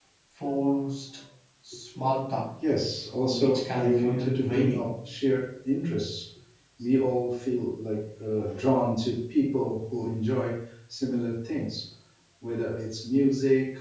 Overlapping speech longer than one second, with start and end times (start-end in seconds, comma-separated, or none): 3.2-4.9